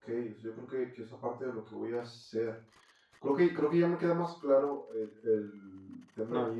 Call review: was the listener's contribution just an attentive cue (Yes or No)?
Yes